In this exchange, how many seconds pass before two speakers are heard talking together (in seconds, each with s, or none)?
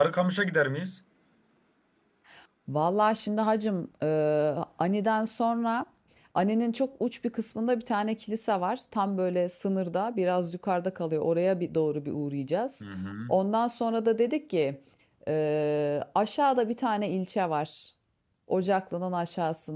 none